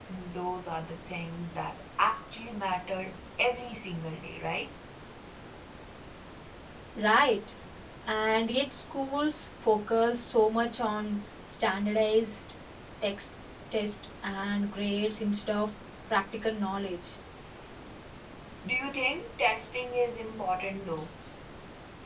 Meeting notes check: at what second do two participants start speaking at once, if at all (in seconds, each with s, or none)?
none